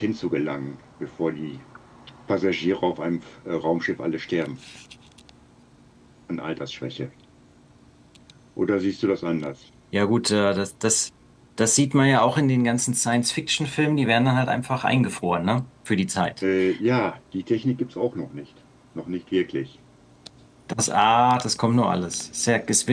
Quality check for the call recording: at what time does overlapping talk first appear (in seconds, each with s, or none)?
none